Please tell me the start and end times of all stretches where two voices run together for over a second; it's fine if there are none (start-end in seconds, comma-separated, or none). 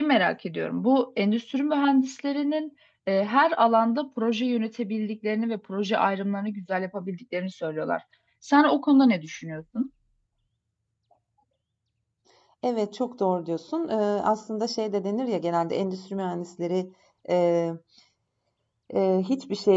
none